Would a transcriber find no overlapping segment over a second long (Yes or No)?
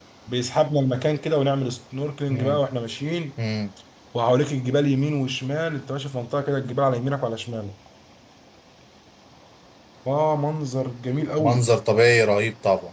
Yes